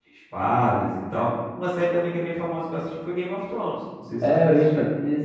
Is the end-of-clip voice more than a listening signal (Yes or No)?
Yes